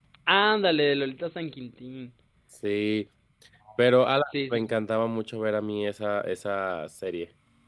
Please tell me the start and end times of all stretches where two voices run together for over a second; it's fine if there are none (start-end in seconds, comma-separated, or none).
none